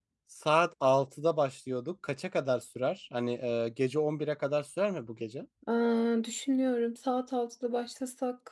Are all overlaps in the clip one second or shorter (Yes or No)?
Yes